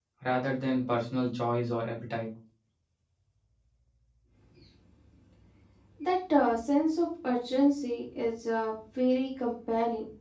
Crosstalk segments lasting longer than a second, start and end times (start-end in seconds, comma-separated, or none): none